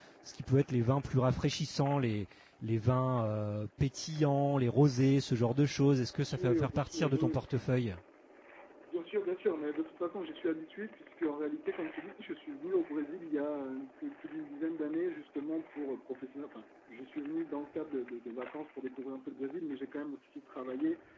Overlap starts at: 6.2 s

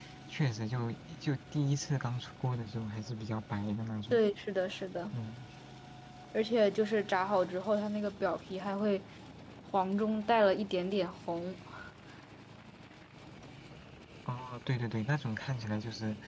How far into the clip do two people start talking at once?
none

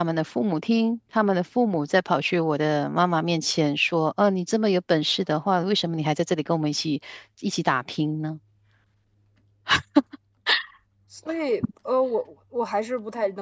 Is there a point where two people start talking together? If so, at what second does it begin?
none

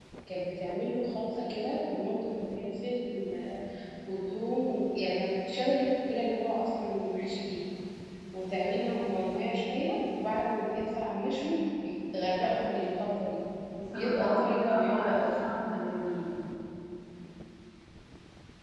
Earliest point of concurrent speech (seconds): 13.9 s

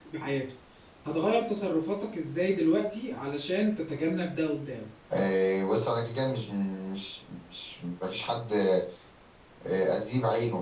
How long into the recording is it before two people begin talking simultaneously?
none

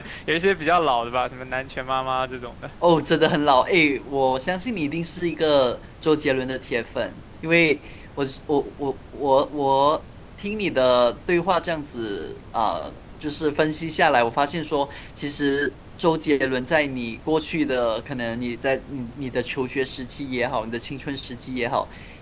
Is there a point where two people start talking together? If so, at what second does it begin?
none

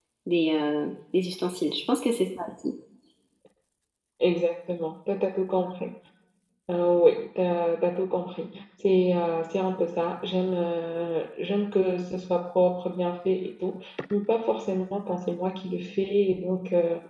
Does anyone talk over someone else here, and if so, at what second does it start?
none

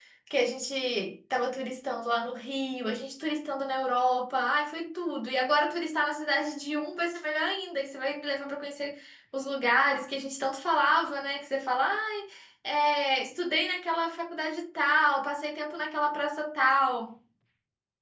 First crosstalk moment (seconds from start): none

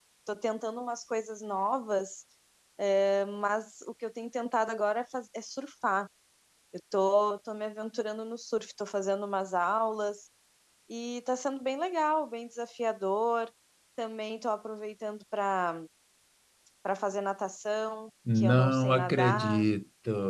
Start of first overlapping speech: 18.3 s

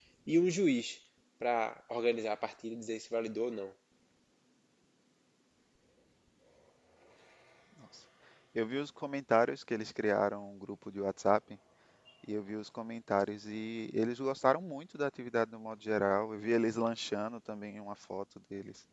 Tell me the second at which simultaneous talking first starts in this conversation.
none

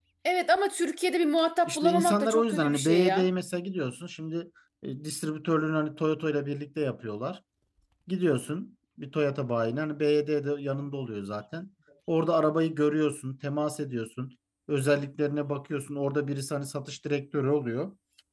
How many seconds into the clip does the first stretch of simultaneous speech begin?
1.6 s

